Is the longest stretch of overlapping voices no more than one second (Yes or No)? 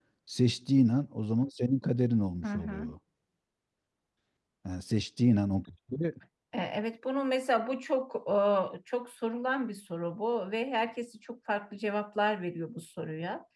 Yes